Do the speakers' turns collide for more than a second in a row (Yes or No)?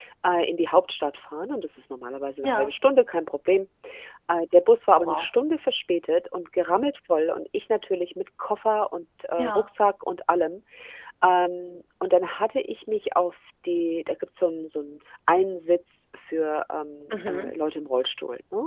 No